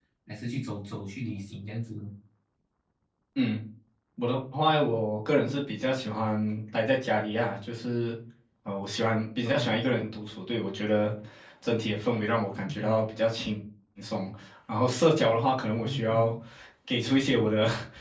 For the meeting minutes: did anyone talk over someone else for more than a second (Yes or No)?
No